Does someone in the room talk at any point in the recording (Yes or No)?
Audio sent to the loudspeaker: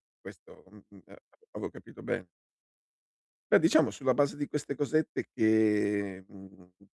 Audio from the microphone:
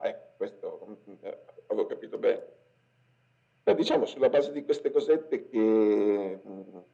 No